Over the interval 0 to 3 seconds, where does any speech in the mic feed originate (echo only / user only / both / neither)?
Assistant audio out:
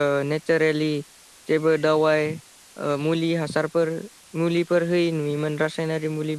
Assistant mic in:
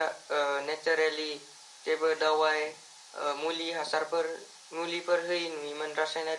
echo only